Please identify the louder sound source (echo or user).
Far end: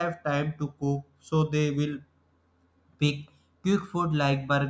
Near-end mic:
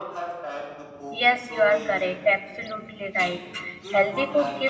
user